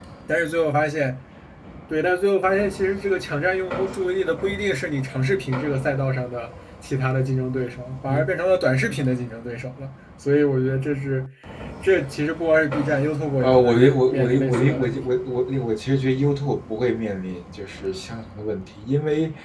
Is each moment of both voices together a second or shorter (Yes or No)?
No